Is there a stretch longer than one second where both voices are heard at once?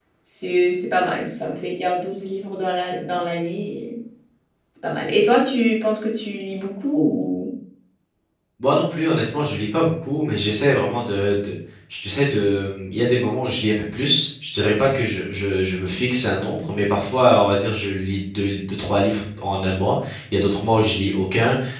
No

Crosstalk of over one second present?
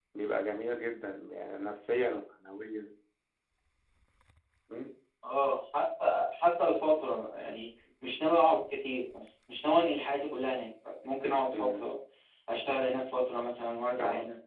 No

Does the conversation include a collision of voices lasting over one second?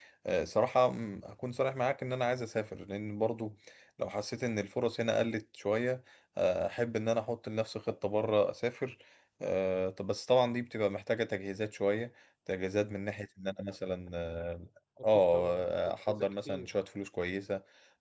Yes, from 15.0 s

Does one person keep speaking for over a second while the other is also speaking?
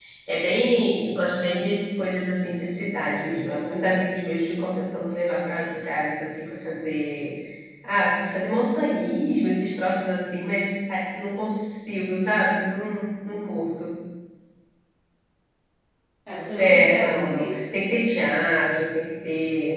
Yes, from 16.5 s

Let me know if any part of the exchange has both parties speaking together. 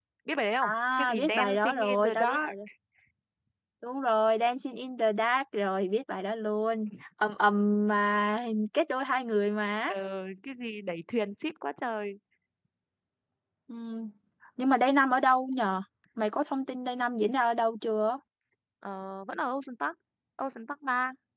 Yes, from 0.6 s

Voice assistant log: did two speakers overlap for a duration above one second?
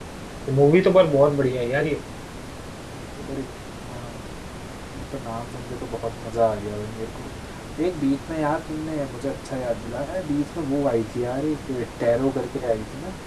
No

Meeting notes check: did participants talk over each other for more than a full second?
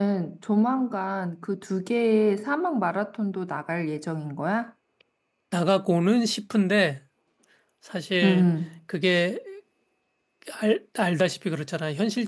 No

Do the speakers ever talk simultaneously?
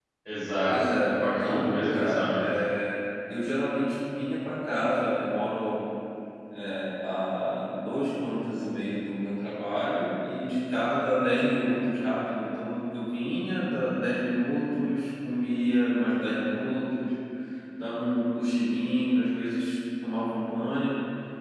Yes, from 0.7 s

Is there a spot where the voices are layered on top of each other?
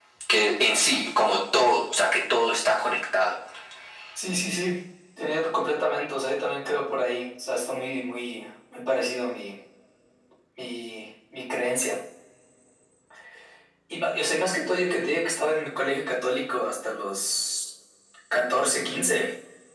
No

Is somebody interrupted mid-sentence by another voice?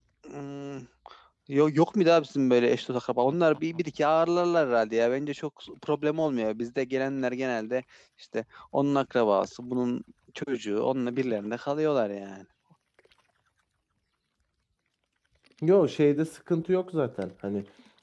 No

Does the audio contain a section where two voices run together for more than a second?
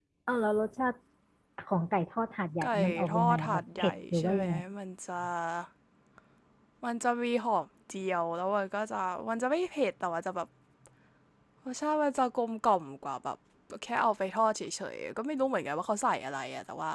Yes, from 2.6 s

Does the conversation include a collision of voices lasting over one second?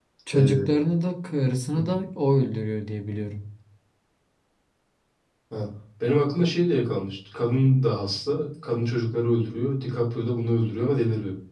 No

